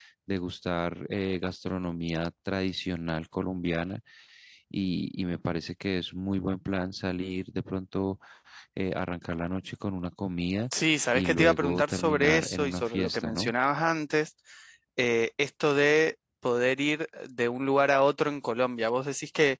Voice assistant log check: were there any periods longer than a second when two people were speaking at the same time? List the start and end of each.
11.1-13.5

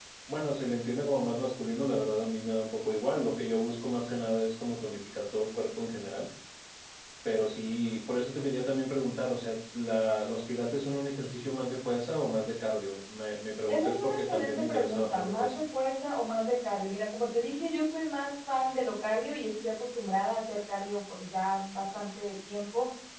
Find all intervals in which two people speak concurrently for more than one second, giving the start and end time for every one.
13.7-15.6

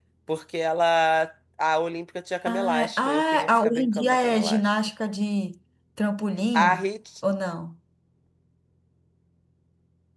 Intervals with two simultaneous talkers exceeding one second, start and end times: 2.5-4.7

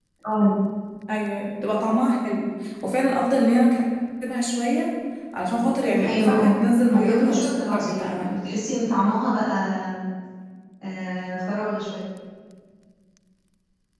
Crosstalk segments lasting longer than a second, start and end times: 6.9-8.3

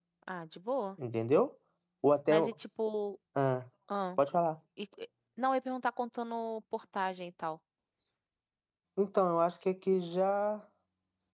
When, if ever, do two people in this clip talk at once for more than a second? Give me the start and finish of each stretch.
none

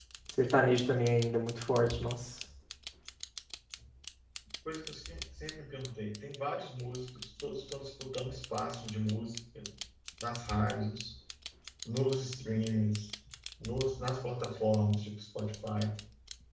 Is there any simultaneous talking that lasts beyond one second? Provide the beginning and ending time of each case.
none

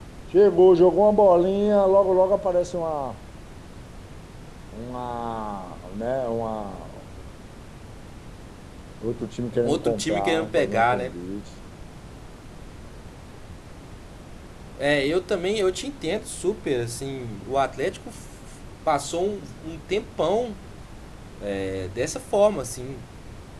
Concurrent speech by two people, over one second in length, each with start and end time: 9.6-11.1

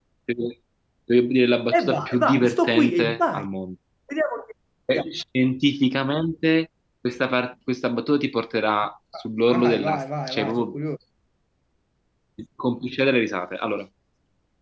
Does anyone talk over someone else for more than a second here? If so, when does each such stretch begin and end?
1.7-3.5, 9.5-10.8

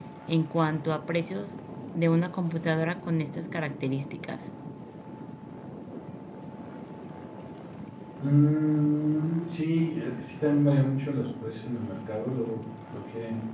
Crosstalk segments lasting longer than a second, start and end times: none

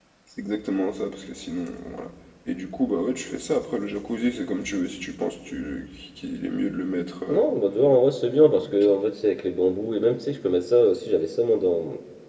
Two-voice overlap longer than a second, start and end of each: none

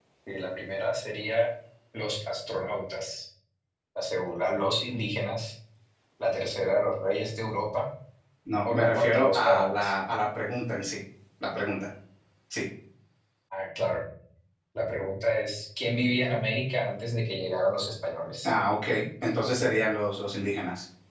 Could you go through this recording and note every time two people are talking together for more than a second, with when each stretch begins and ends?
8.6-10.0

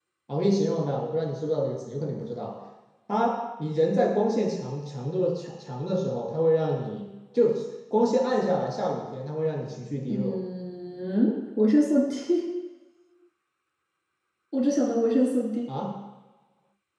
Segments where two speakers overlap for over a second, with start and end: none

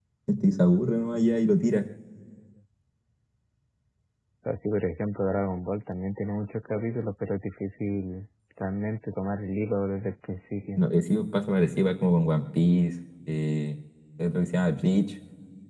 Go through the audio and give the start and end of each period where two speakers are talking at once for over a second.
none

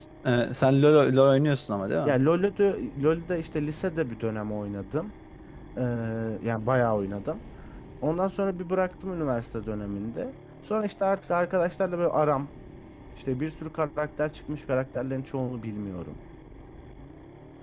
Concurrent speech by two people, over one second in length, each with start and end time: none

